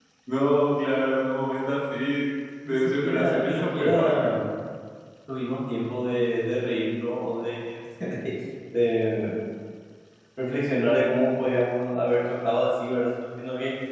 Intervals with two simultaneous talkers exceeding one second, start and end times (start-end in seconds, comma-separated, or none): 2.7-4.1